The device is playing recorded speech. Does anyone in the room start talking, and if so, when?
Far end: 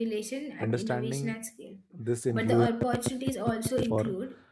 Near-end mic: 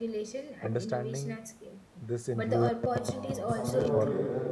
2.9 s

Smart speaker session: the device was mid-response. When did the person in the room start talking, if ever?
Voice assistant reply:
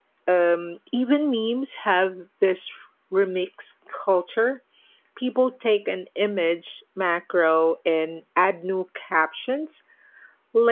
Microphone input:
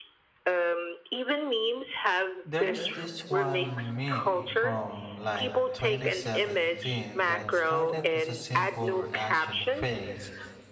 2.4 s

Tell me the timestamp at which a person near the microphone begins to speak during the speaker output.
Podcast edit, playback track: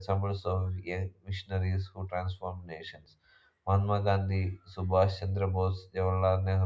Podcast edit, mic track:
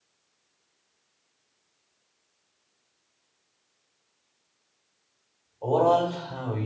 5.6 s

